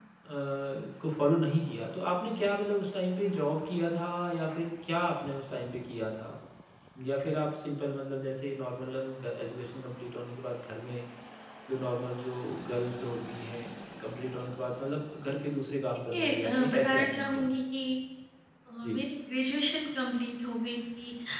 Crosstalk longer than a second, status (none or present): present